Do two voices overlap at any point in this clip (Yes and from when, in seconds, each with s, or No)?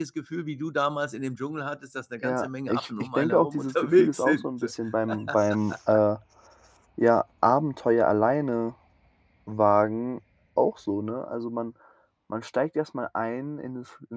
Yes, from 2.2 s